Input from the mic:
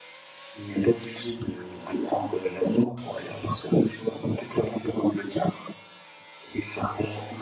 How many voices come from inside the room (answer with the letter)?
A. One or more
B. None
B